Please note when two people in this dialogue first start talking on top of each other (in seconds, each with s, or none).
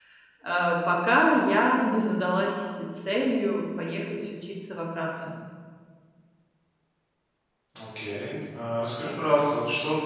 none